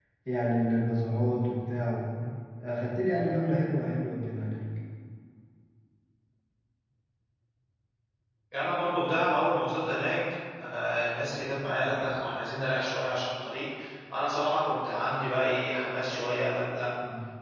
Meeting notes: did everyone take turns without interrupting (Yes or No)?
Yes